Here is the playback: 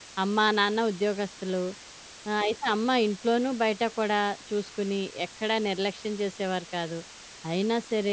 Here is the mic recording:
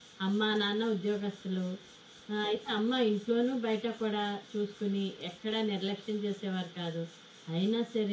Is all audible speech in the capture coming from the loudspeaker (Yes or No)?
Yes